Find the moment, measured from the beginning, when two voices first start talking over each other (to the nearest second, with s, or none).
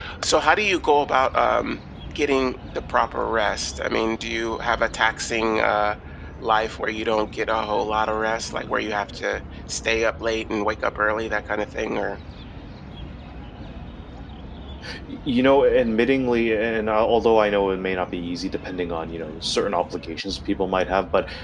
none